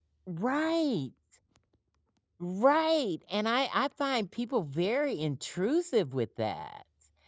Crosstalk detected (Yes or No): No